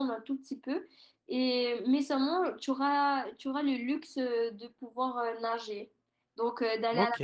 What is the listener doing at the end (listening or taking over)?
taking over